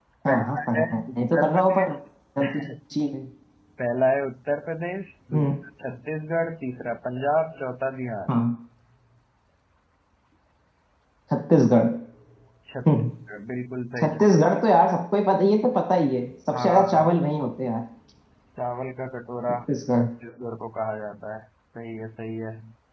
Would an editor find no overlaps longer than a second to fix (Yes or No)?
No